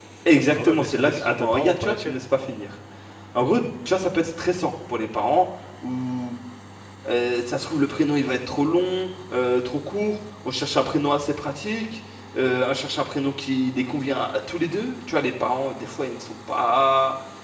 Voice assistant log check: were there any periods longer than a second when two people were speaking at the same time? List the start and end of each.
0.5-2.2

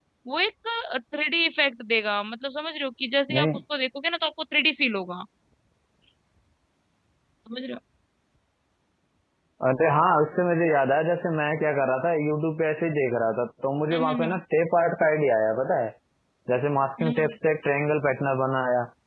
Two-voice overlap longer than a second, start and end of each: none

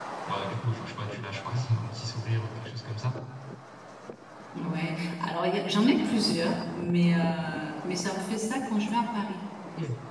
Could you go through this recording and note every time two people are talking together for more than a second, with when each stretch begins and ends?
none

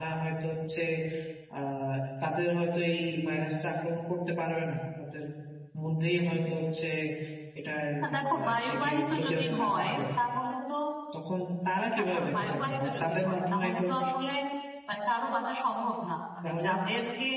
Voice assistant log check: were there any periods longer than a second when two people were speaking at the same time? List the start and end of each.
8.3-10.0, 12.0-13.8

